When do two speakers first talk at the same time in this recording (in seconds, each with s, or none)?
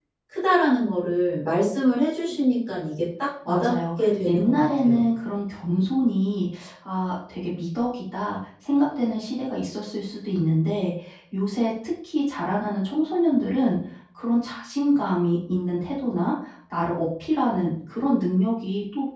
3.5 s